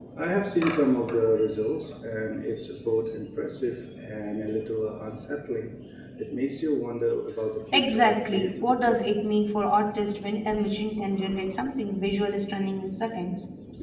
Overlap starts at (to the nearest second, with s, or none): 8 s